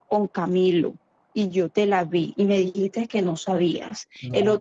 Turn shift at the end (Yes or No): No